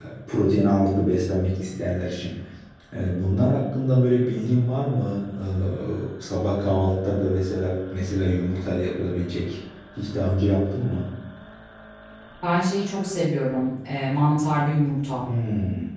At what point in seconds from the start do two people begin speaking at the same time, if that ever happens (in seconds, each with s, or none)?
none